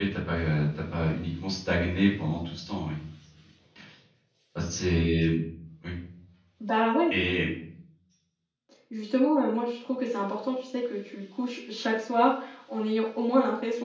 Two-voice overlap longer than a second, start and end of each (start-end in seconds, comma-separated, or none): none